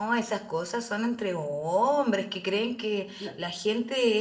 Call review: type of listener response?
listening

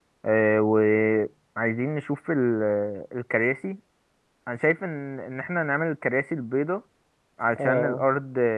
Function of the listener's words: listening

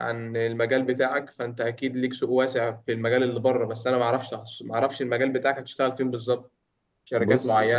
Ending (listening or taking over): listening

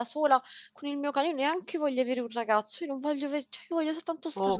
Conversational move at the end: taking over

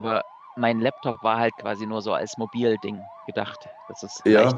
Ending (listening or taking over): listening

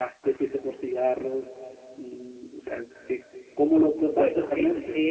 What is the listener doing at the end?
taking over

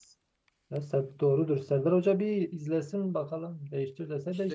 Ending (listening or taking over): taking over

